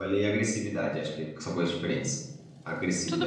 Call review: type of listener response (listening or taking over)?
taking over